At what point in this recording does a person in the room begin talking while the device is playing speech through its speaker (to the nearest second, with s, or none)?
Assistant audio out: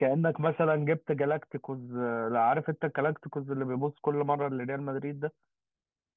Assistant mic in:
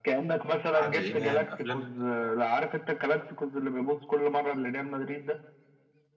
1 s